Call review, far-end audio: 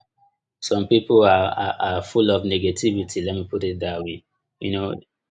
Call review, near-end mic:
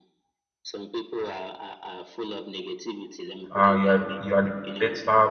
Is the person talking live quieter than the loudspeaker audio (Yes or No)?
No